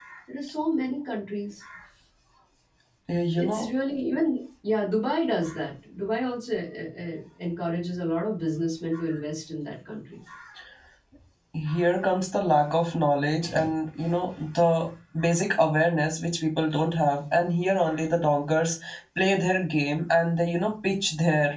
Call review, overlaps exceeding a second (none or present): none